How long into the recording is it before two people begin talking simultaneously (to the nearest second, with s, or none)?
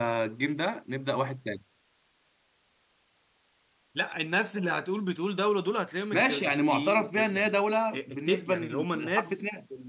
6 s